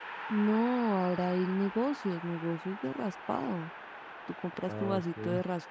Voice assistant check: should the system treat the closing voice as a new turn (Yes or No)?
No